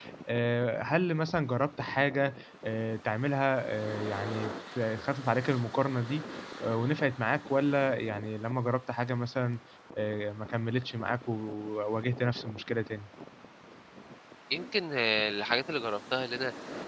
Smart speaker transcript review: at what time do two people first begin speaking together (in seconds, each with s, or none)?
none